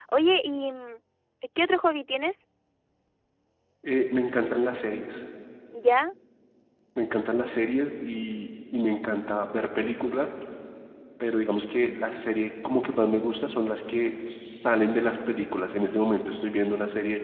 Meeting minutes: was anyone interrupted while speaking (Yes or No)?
No